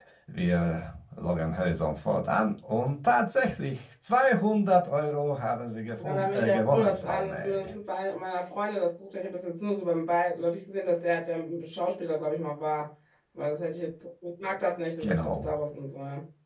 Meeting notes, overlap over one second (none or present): present